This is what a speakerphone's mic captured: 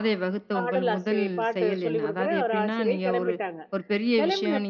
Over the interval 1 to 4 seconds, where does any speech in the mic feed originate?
both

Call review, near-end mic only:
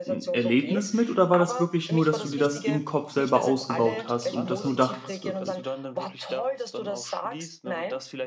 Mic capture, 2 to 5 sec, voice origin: both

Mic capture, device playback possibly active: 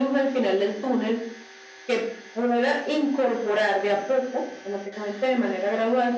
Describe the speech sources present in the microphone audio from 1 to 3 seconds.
echo only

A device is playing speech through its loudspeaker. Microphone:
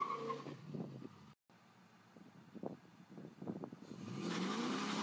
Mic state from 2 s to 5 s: neither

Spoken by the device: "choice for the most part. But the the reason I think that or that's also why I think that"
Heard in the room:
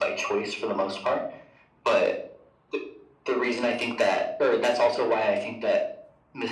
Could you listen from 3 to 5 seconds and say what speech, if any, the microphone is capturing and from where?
echo only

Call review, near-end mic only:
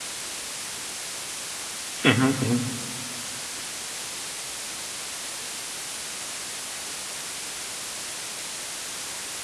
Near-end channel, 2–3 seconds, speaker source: user only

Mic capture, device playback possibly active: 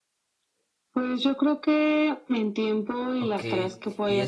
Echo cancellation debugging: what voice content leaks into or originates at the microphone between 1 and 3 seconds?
echo only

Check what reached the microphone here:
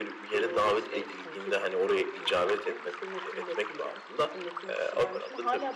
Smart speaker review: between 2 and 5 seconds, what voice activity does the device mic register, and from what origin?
echo only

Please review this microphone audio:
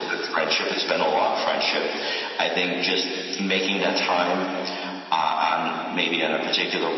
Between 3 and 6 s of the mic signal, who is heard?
echo only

